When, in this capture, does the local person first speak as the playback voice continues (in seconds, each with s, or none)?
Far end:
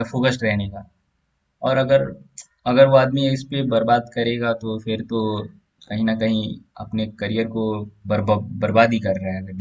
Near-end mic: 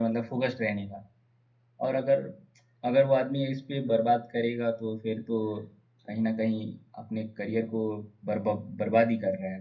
none